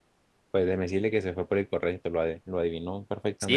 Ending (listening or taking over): taking over